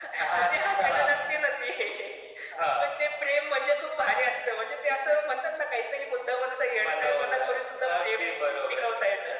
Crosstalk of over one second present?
Yes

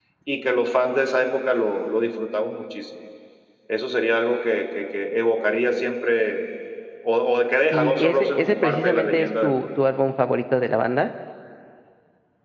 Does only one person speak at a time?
No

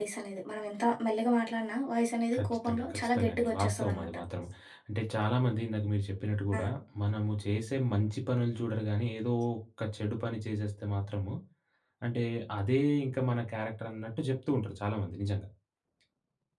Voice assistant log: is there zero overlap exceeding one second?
No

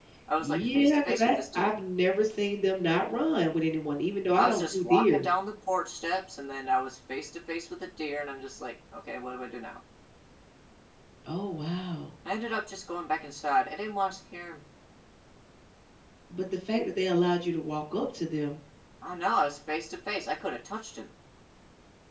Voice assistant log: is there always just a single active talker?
No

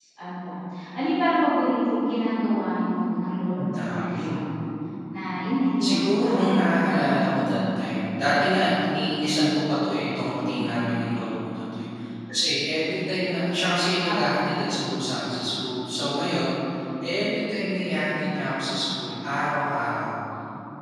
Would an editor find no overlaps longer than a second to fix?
No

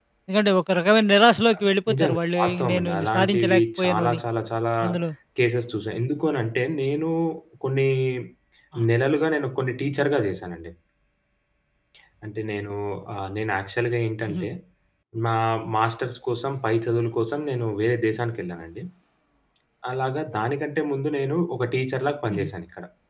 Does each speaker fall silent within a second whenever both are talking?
No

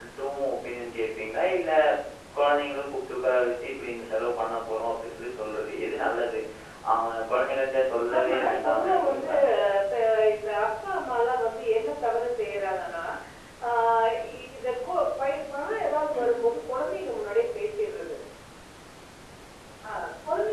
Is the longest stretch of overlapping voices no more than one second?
No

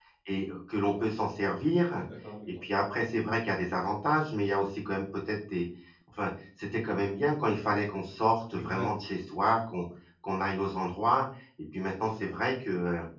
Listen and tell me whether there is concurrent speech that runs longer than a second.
No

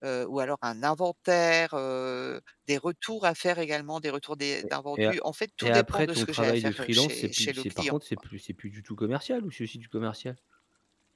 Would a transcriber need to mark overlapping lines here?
Yes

